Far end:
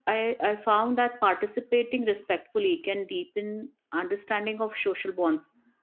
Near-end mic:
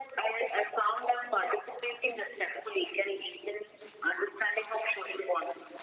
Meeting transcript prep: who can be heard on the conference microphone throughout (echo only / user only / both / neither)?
echo only